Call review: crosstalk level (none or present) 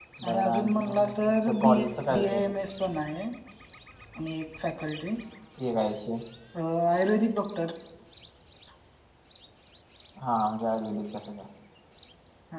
present